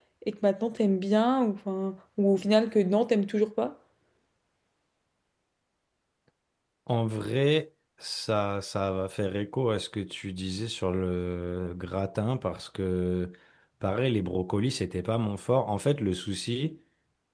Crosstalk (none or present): none